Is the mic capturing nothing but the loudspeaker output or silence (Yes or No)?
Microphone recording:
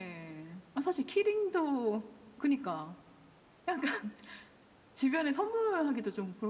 Yes